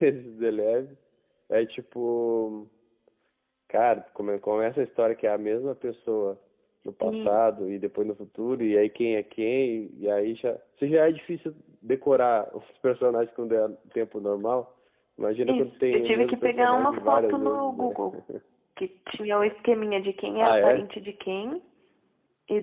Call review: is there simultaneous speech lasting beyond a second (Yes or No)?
Yes